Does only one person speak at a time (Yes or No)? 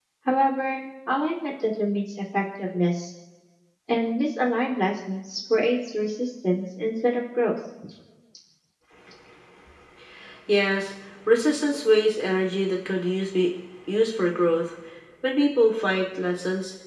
Yes